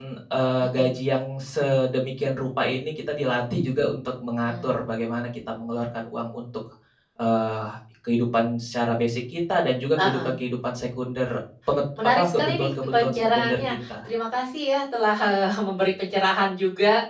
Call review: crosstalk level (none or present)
present